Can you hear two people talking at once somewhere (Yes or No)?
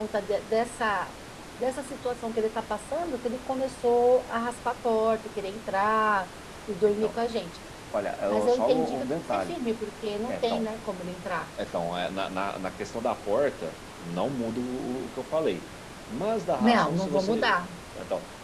Yes